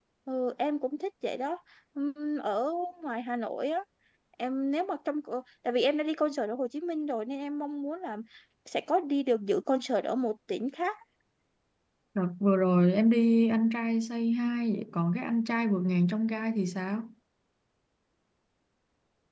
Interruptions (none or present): none